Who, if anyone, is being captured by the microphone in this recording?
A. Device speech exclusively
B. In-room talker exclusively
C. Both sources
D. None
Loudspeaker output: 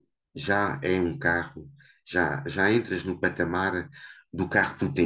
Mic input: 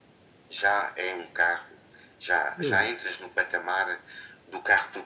C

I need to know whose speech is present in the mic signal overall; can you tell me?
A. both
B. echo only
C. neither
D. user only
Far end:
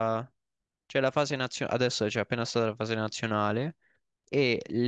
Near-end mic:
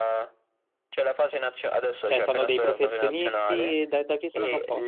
A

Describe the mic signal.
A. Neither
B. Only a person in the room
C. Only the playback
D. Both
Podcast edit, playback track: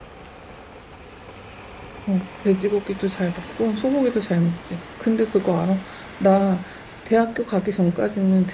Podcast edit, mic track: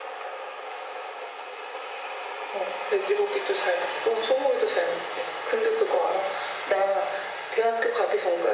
C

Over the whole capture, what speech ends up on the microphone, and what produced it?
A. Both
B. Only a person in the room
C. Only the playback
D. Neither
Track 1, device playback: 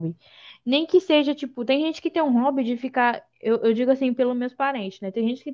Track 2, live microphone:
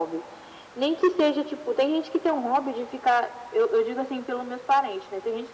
C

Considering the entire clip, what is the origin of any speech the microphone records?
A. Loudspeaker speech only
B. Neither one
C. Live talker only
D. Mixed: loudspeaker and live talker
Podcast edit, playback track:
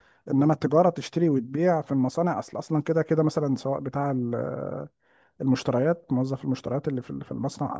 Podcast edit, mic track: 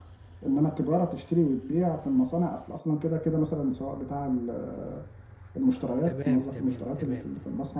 D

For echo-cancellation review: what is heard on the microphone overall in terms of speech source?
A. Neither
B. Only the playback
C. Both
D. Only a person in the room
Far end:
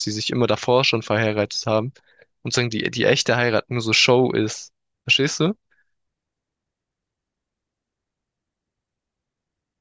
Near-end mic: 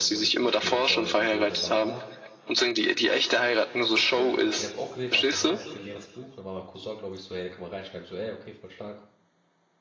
C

